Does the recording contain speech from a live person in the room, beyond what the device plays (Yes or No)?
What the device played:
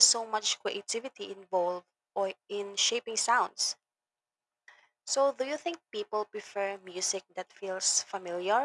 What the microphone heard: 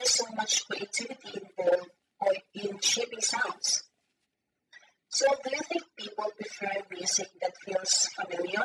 No